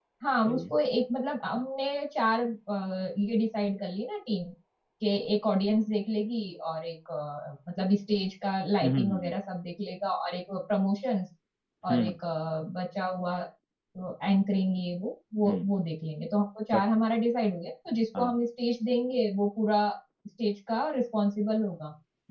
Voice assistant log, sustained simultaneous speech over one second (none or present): none